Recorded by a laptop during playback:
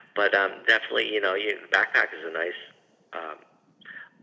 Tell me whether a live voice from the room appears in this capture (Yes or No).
No